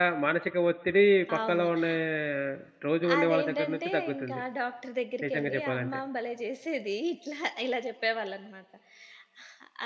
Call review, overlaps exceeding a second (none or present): present